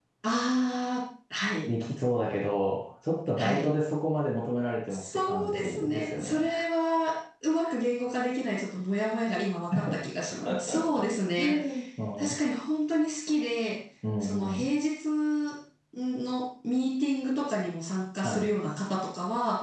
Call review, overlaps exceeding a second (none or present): present